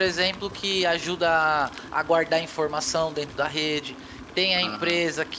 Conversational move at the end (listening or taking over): listening